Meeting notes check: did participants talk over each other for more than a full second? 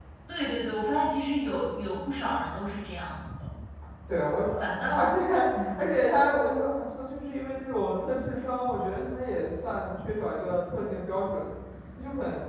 No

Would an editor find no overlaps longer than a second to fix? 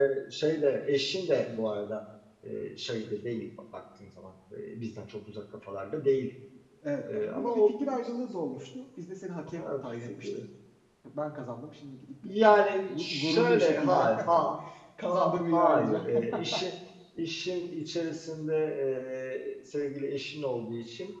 No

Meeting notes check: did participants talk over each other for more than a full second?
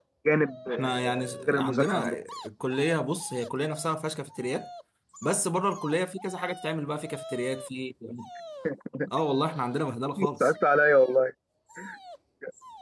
Yes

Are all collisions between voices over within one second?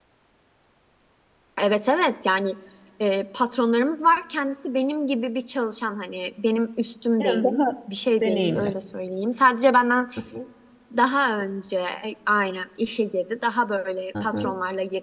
Yes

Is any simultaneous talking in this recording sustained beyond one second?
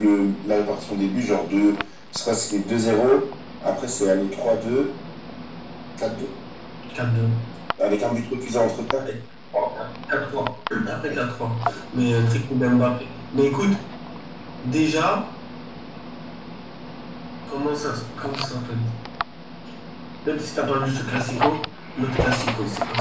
No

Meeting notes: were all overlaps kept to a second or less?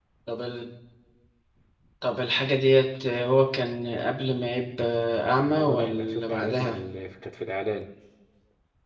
No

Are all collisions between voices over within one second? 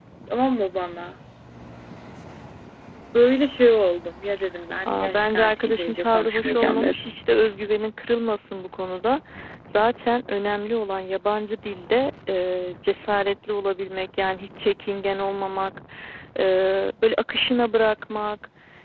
No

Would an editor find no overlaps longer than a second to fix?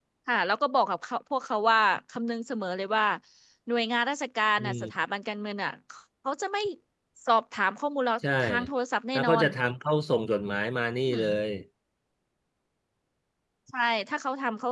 Yes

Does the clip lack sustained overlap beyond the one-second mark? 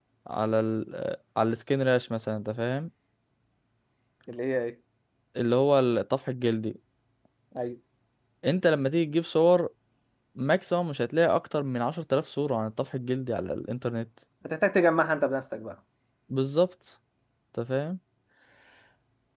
Yes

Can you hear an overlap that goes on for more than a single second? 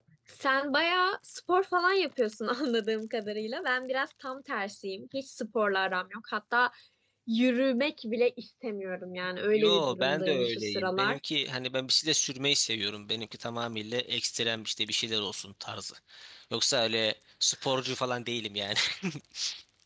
Yes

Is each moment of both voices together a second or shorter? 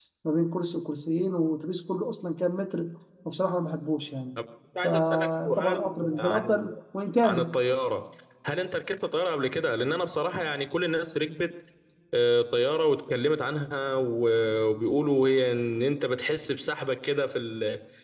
No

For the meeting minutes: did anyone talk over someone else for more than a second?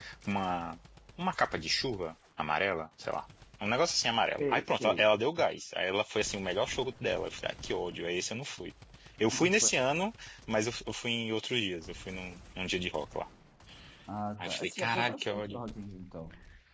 Yes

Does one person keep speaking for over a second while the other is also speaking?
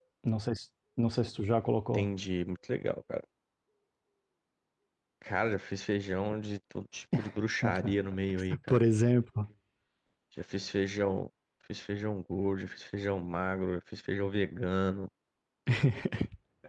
No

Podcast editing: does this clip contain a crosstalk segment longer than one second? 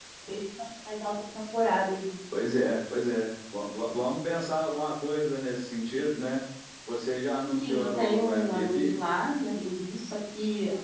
Yes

